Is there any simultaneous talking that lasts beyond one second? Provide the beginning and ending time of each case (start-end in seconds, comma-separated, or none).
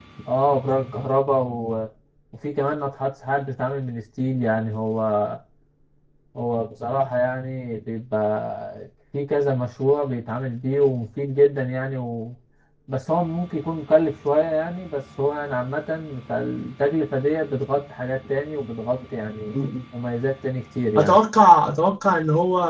none